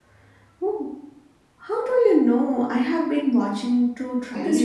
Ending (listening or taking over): taking over